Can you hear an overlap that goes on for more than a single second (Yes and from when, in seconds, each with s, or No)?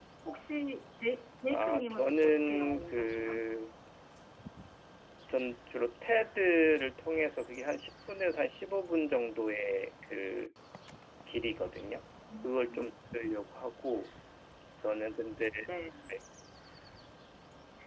Yes, from 1.5 s